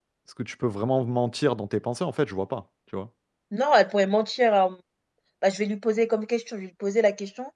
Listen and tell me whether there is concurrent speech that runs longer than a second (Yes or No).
No